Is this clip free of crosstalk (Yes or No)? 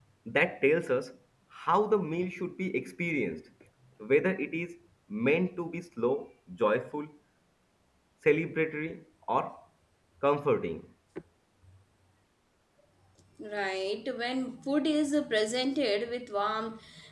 Yes